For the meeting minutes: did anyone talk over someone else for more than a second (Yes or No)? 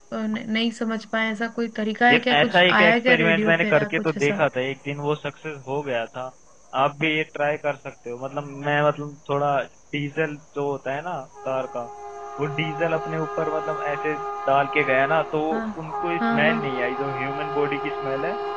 Yes